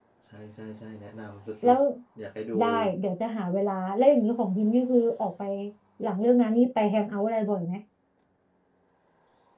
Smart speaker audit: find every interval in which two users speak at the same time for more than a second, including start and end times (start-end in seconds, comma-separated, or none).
none